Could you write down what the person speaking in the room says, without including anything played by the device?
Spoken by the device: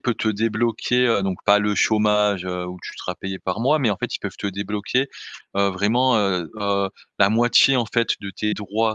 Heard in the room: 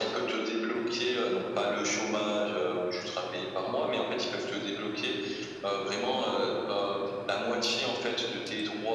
none

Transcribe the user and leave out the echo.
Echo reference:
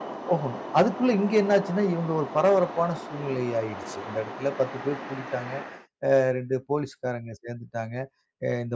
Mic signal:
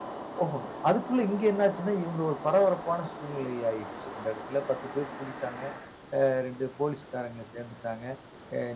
none

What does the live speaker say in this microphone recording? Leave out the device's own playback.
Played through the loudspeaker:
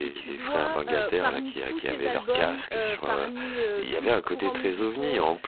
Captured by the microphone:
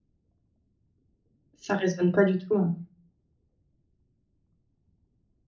Ça raisonne pas du tout, heu

